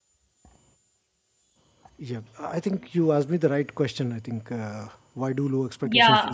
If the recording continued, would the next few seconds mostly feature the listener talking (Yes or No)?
Yes